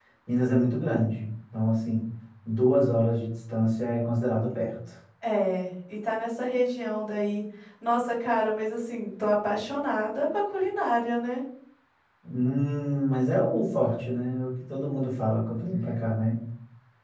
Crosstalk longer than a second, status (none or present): none